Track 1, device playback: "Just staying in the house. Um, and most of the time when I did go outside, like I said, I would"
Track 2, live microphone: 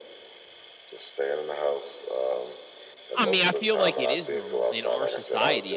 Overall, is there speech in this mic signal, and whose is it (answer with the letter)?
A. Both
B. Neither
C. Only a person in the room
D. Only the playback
A